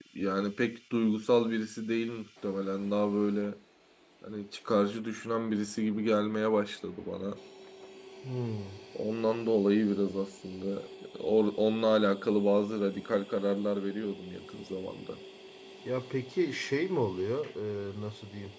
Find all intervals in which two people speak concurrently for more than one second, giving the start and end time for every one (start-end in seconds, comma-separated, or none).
none